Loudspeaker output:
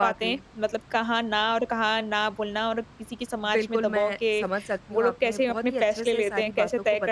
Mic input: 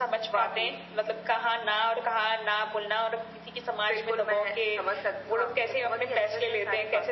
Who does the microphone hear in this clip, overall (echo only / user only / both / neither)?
echo only